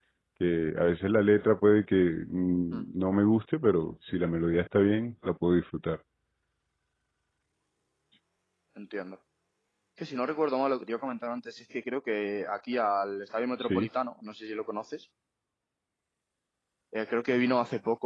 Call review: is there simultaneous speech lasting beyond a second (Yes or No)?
No